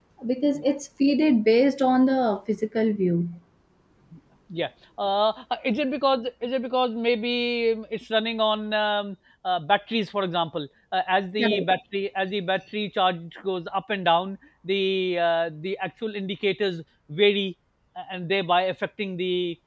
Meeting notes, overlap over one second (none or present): none